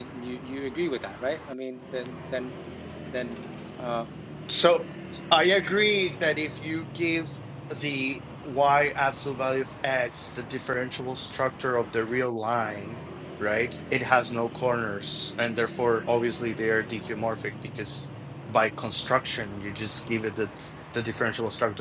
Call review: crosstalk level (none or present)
none